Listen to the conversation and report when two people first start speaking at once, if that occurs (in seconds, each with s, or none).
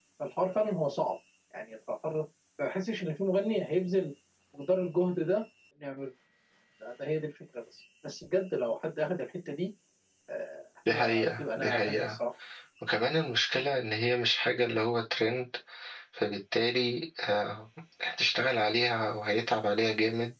10.9 s